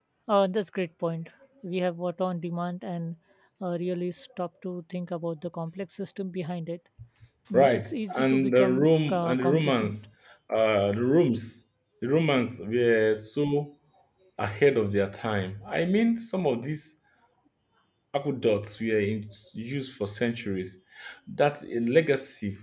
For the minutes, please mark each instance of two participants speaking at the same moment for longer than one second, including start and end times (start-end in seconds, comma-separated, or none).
7.5-10.0